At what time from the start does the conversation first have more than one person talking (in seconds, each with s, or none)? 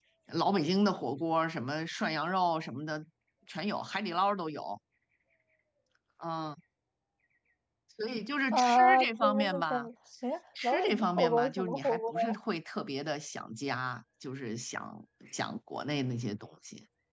8.5 s